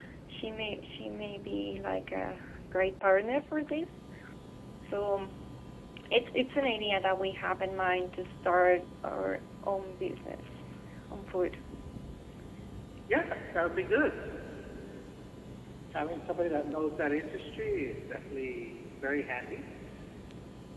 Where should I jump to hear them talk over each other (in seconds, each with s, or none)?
none